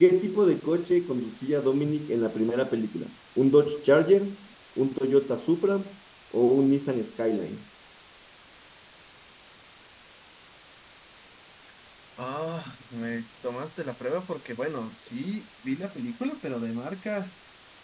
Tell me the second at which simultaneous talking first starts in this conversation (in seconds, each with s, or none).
none